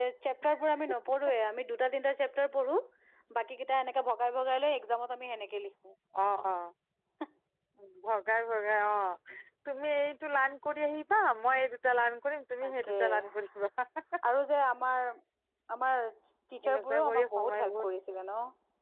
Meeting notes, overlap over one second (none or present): present